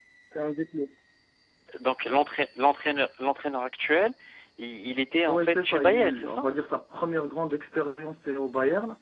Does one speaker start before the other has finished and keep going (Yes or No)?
Yes